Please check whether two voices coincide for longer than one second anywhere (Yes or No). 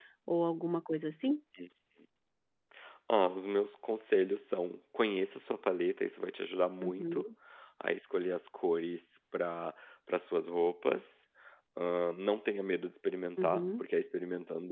No